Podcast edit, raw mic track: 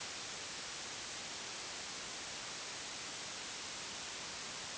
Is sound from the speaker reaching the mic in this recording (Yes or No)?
No